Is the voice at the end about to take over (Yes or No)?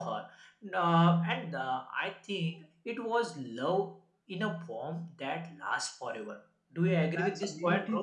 Yes